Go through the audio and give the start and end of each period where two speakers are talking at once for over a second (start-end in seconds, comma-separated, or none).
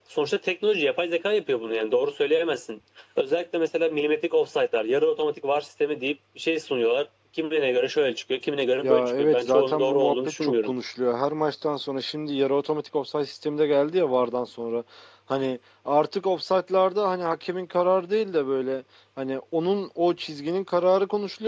8.8-10.7